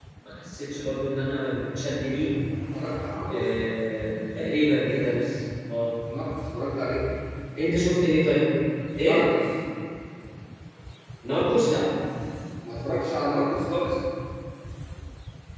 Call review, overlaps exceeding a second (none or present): none